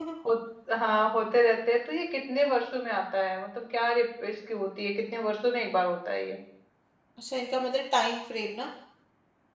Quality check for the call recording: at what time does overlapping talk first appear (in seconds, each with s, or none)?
none